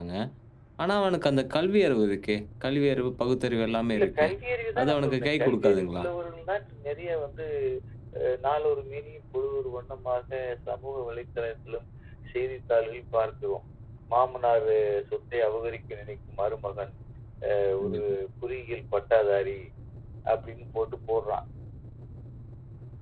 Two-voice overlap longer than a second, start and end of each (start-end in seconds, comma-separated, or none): 4.8-6.0